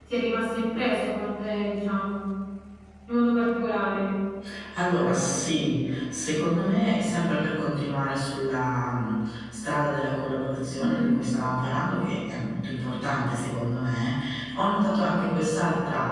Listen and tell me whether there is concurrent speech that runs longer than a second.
No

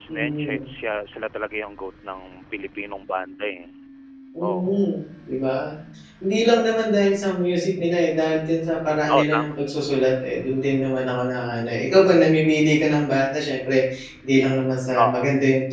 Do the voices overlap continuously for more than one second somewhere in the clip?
No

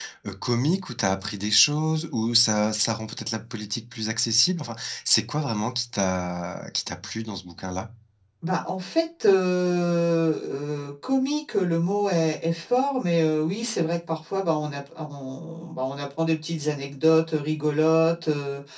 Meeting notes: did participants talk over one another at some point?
No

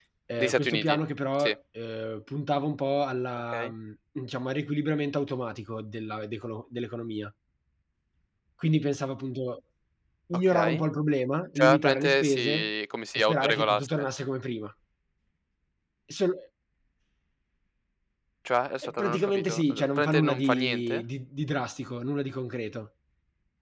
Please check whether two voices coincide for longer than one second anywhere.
Yes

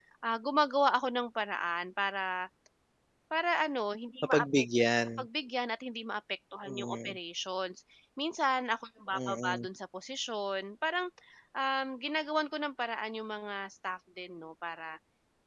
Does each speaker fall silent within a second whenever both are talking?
Yes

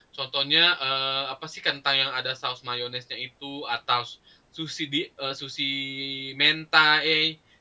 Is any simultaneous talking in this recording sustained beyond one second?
No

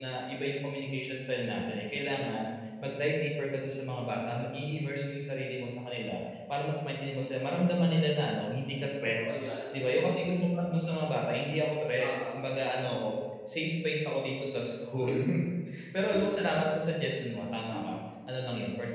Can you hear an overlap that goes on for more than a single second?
No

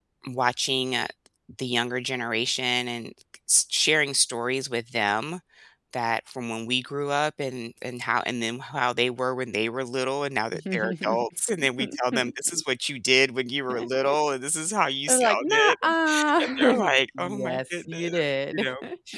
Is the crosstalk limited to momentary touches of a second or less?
No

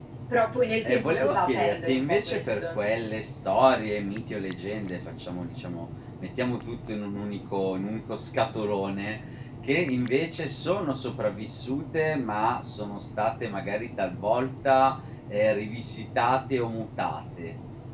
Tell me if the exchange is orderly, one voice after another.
No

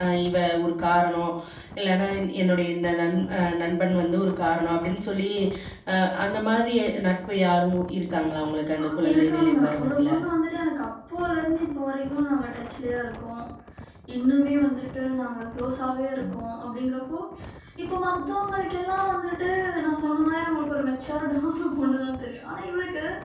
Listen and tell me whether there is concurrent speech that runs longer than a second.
Yes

